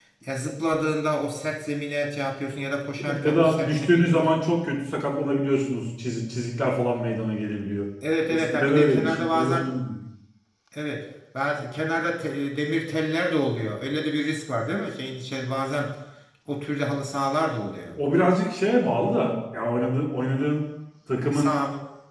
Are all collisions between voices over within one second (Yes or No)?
No